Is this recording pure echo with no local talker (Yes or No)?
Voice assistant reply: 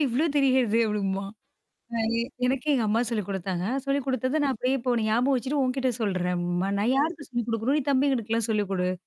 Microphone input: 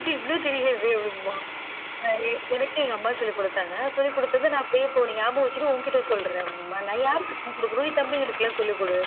Yes